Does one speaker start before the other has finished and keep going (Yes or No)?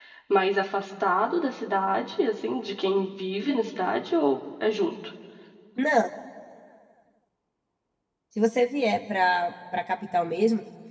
No